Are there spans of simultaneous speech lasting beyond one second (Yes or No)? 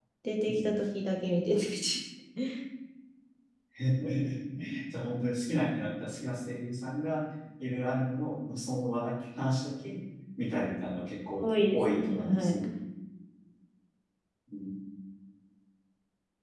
Yes